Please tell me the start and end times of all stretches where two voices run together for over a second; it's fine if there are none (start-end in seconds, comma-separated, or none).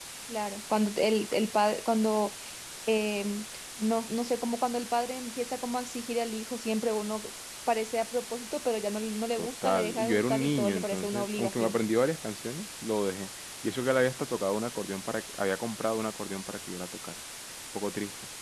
9.4-11.8